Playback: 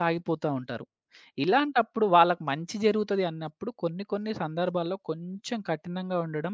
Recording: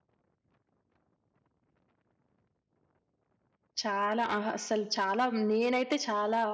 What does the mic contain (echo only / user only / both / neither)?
user only